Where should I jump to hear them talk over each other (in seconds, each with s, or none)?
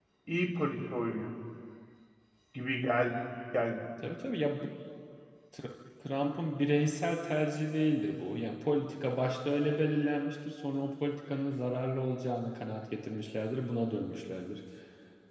none